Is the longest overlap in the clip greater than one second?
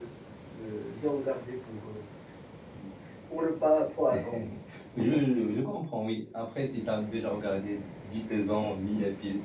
No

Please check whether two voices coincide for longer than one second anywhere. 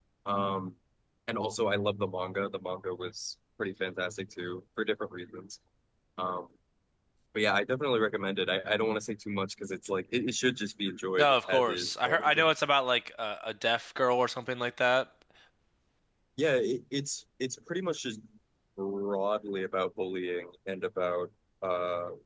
Yes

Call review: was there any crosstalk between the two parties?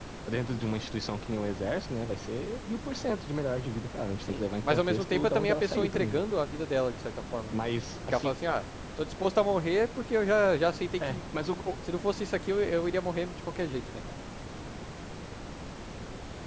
Yes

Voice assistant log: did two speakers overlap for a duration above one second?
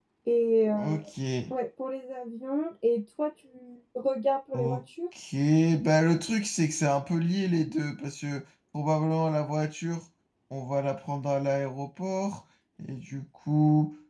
No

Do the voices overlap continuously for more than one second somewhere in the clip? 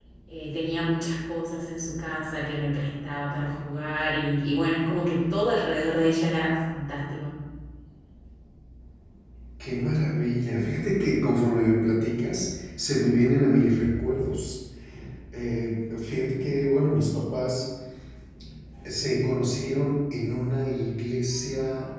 No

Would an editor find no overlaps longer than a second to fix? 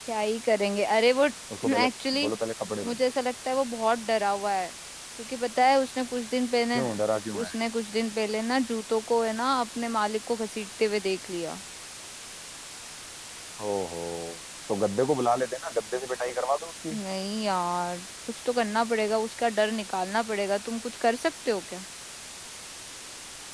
Yes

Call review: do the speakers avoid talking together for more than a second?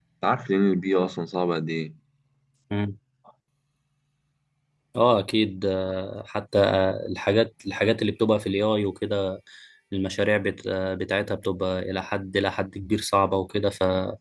Yes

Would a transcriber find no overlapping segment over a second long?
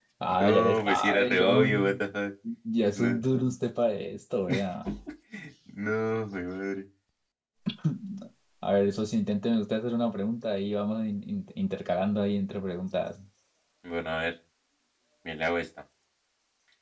No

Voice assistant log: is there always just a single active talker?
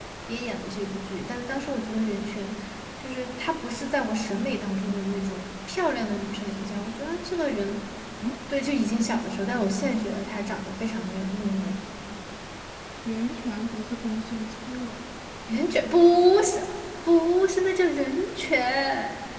Yes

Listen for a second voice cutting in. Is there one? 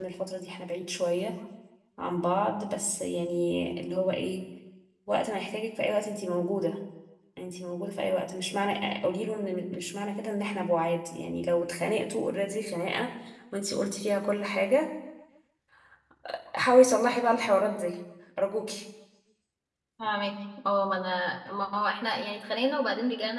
No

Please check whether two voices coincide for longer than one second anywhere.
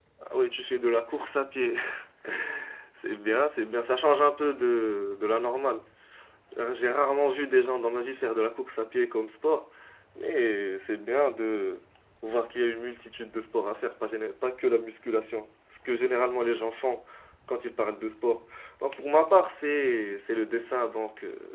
No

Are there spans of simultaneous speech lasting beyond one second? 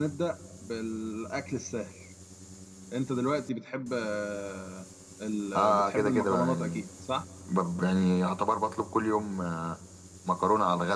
Yes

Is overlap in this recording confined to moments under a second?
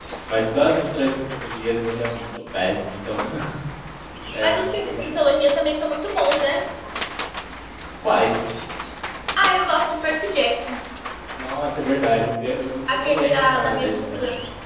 No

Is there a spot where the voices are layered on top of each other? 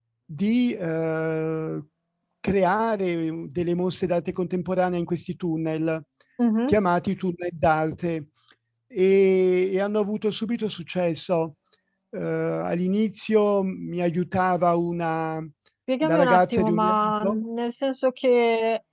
Yes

